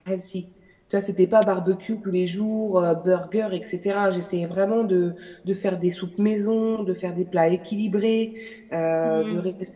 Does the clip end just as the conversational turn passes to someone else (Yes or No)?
Yes